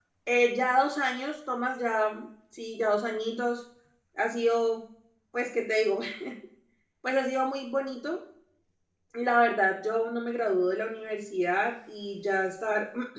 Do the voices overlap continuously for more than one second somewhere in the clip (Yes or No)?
No